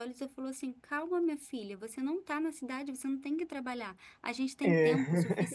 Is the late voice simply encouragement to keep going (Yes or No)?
Yes